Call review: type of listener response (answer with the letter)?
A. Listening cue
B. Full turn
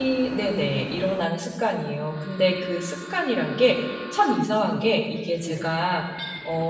A